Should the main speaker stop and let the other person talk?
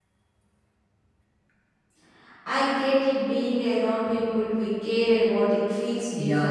Yes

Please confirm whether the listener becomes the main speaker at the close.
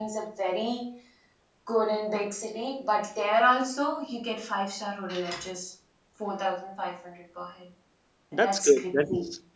Yes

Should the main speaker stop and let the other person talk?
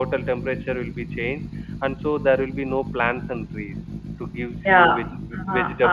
Yes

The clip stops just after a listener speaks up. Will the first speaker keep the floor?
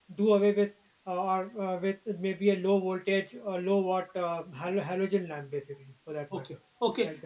No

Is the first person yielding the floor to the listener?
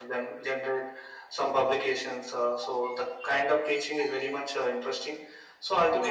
No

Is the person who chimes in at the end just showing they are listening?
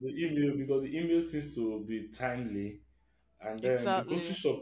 Yes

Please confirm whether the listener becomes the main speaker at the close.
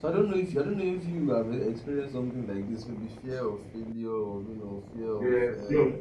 Yes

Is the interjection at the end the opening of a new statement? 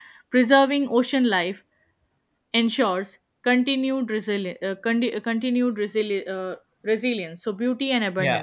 Yes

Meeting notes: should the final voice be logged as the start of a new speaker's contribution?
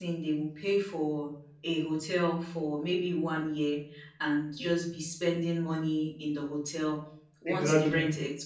No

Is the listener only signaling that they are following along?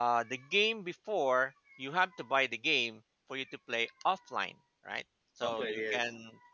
Yes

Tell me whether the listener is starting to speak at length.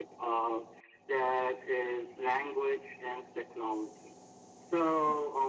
No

